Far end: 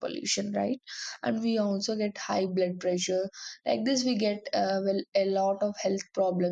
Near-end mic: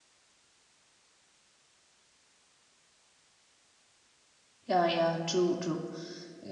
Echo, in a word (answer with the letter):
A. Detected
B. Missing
B